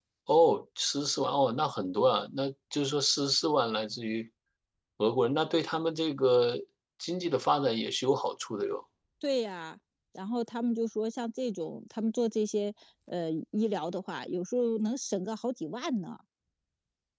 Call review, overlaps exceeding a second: none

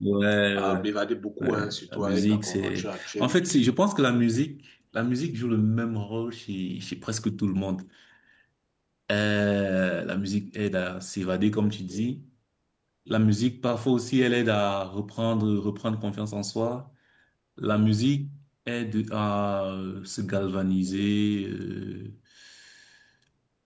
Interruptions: present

